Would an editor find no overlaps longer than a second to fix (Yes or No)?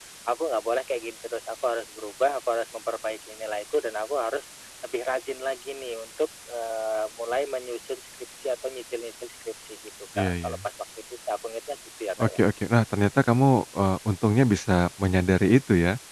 Yes